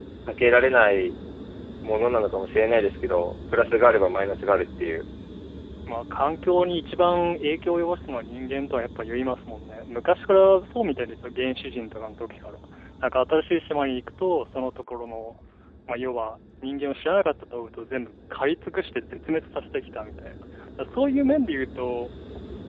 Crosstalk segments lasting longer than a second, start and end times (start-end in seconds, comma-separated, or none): none